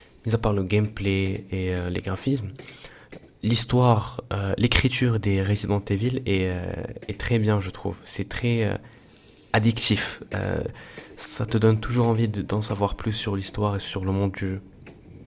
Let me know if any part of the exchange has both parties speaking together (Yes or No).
No